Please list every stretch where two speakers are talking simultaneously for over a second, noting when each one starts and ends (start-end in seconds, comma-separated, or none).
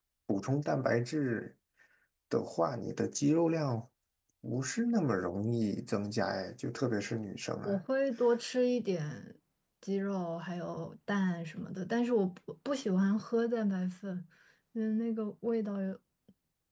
none